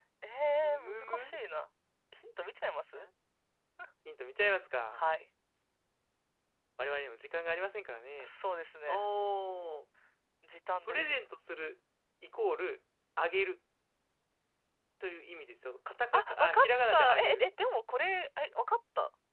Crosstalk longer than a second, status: present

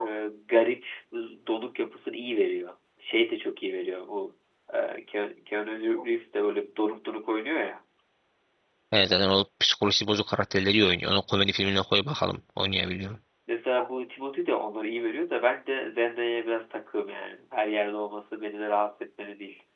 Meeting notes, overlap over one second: none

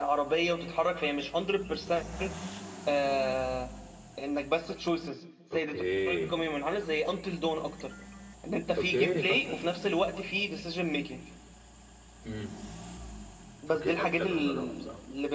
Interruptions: present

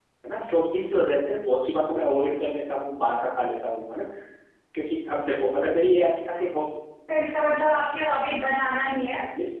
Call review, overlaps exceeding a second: none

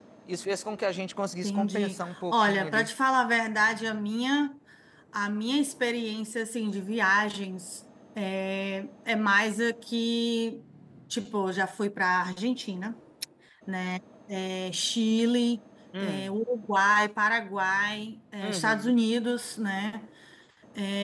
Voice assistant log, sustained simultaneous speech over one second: present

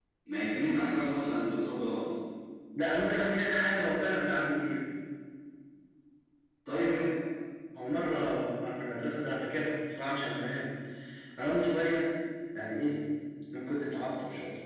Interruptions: none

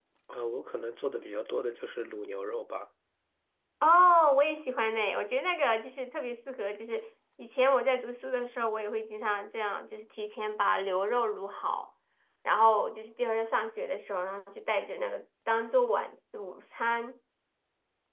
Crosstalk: none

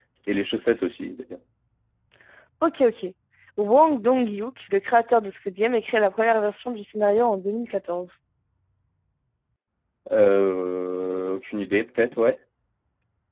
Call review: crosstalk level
none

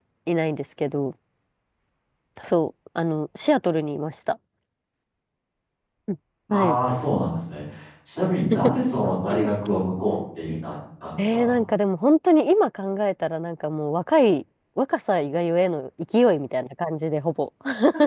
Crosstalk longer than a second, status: none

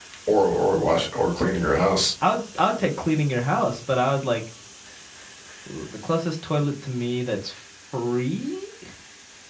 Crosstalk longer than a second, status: none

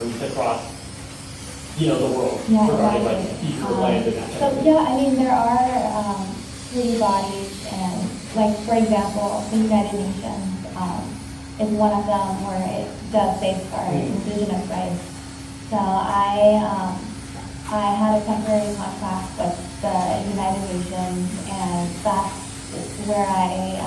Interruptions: present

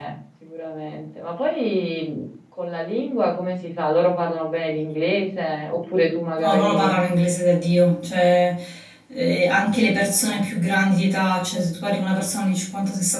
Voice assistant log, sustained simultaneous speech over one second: none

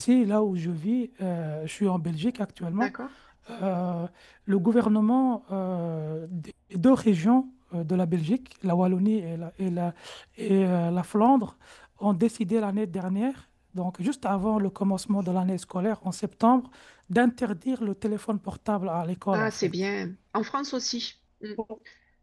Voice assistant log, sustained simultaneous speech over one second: none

